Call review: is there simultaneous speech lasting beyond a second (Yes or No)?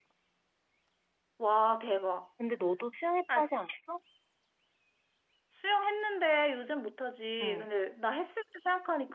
No